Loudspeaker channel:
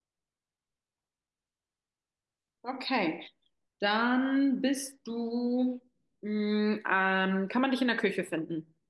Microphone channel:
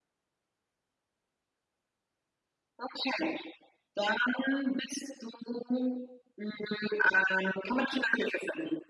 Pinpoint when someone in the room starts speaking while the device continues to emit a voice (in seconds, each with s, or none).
none